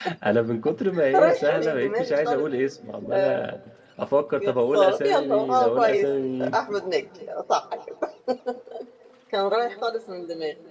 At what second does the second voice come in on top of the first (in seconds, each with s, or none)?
1.1 s